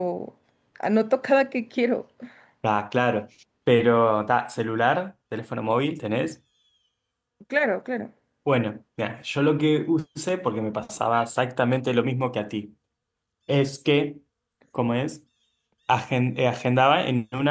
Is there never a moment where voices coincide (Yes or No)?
Yes